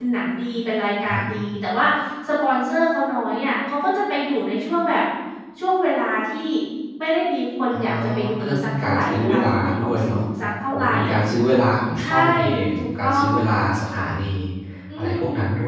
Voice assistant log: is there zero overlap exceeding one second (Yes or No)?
No